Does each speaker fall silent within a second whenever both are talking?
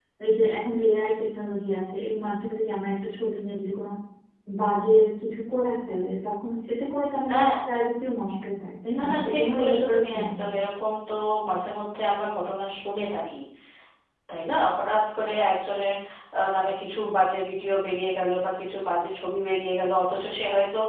No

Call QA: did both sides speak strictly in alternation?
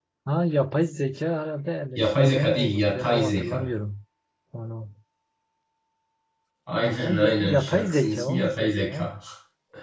No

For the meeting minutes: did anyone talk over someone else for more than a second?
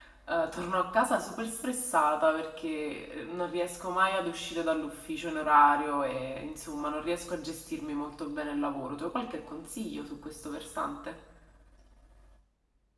No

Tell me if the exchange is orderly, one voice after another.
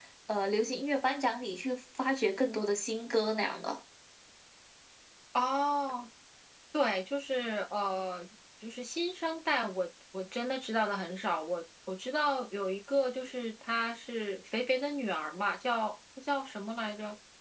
Yes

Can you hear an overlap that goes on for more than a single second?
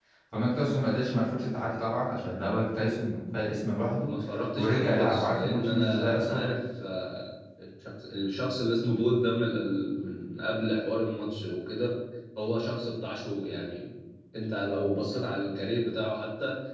Yes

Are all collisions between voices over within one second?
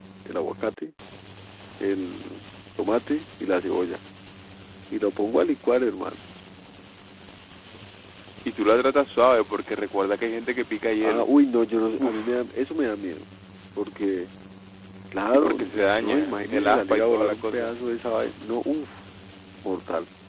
No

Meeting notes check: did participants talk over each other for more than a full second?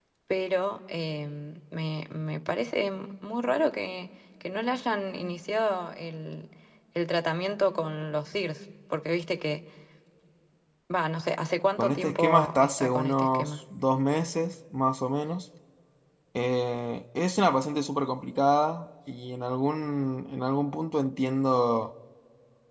Yes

